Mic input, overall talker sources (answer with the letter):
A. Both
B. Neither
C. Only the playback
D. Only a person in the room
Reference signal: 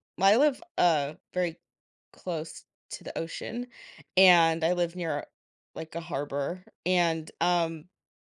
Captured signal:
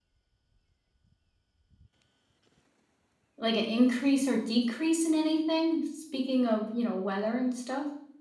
D